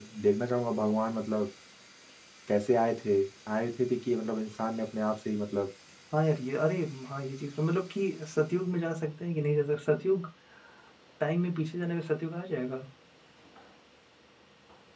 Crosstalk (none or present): none